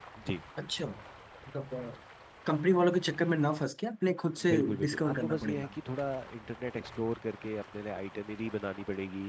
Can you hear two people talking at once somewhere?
Yes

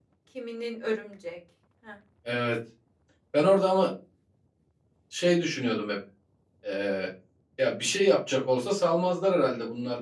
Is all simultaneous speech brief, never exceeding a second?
Yes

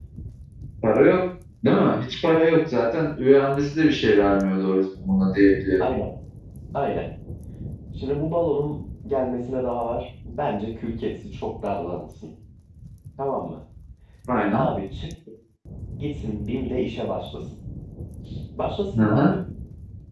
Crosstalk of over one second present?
No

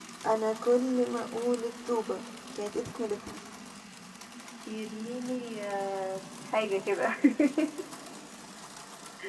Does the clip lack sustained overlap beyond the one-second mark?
Yes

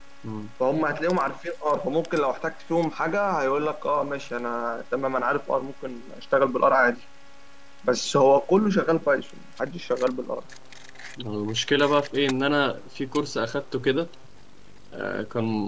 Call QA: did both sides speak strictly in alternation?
Yes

